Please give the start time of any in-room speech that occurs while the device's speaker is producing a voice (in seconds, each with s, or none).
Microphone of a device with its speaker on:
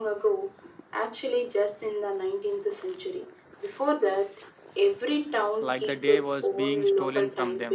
5.6 s